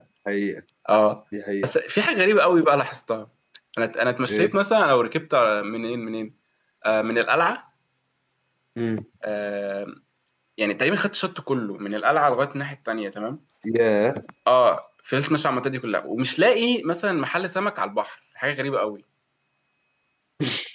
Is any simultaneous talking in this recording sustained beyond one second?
No

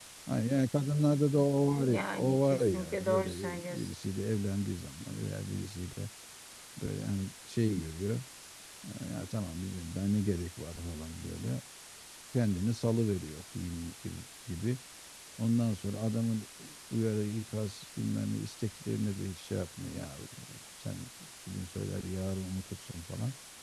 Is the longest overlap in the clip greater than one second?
Yes, from 1.8 s

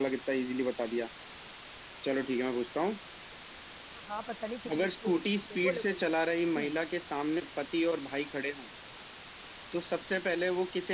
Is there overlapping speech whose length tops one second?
Yes, from 4.7 s

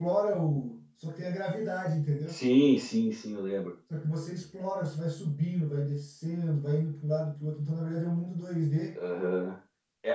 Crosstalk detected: No

